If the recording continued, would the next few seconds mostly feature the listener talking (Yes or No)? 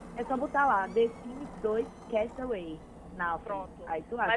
Yes